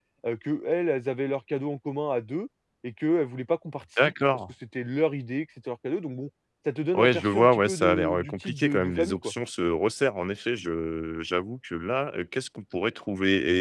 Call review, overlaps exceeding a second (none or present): present